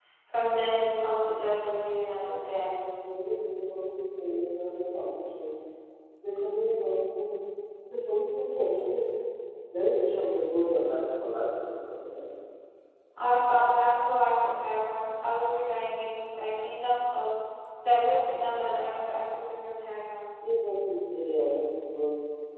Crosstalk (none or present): none